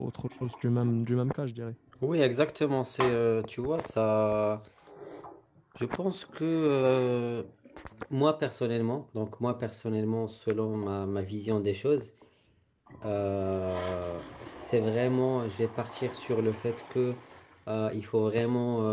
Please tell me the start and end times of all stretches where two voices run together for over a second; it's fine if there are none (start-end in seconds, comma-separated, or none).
none